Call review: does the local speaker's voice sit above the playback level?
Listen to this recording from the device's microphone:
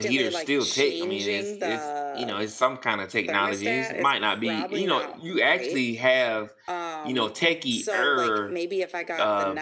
Yes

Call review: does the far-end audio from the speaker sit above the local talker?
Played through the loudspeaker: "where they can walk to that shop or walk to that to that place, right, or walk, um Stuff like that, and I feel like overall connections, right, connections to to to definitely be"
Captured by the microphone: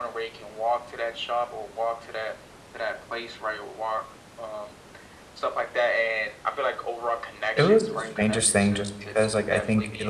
No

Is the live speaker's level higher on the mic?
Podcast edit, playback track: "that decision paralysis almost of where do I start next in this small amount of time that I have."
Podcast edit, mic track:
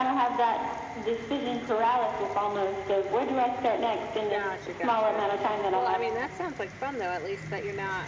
No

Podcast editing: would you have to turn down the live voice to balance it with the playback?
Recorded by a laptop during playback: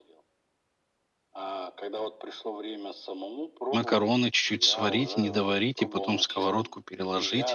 Yes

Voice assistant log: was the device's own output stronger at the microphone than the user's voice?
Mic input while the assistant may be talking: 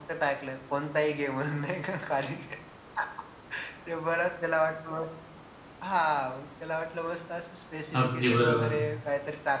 No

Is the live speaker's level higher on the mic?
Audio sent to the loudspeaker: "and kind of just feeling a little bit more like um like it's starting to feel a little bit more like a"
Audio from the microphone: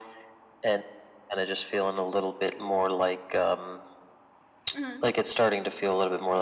No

